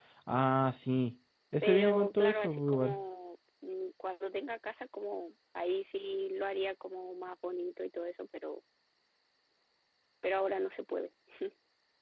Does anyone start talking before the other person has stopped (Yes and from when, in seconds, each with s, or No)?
Yes, from 1.6 s